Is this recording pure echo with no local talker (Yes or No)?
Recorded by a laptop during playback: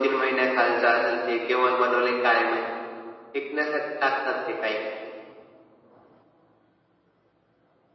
Yes